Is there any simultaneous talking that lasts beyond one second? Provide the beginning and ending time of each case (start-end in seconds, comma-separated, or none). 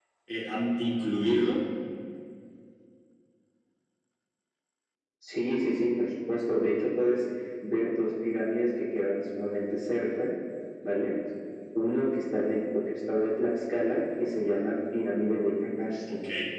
none